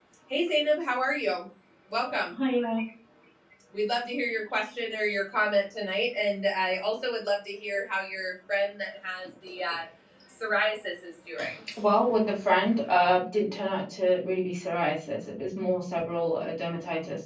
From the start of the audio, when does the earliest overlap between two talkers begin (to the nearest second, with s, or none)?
none